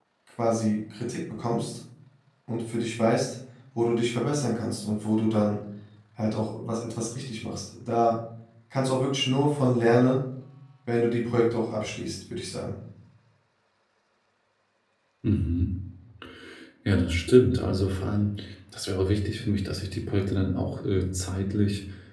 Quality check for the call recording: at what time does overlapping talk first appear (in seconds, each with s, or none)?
none